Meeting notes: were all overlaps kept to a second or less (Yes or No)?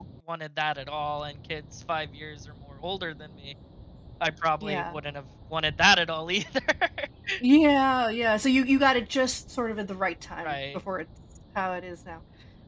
Yes